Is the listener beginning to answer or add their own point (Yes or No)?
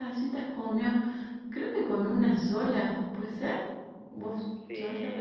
Yes